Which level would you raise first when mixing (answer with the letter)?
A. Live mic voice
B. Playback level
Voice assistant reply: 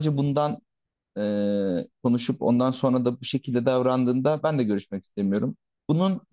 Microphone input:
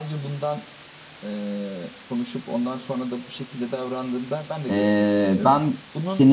B